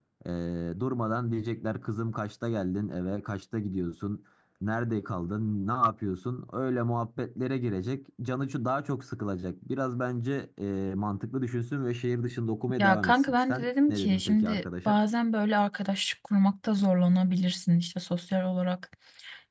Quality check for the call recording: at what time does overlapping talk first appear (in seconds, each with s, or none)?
12.8 s